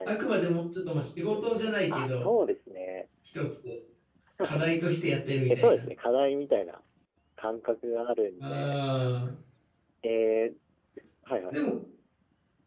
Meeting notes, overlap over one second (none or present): none